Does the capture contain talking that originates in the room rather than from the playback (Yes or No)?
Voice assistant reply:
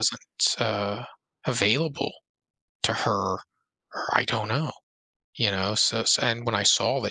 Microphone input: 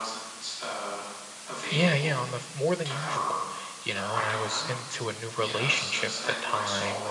Yes